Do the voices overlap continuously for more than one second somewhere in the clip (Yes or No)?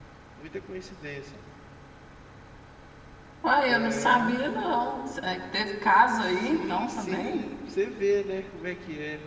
Yes